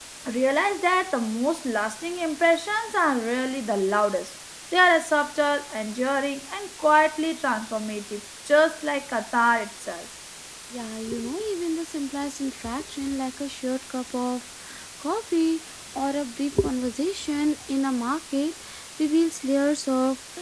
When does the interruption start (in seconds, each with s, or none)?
none